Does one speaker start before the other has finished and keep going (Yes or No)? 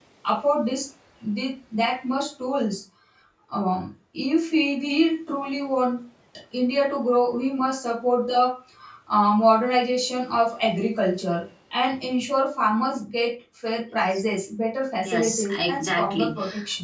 Yes